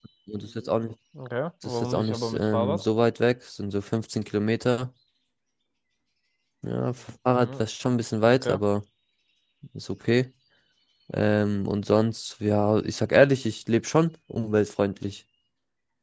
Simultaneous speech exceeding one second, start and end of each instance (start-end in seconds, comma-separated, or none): 1.6-2.9